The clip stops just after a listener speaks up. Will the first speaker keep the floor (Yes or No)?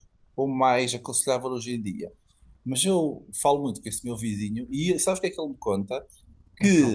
Yes